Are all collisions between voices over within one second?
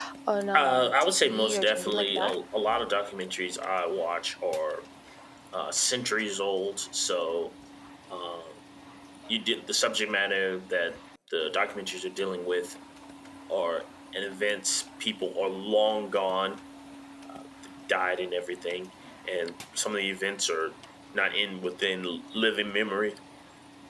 No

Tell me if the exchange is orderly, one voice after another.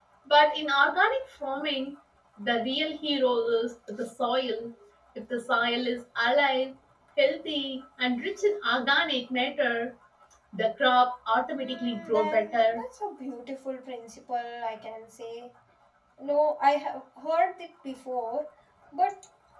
No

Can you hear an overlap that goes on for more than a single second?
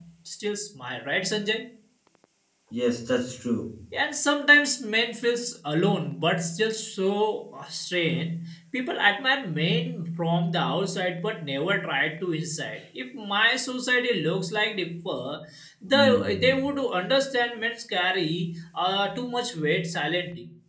No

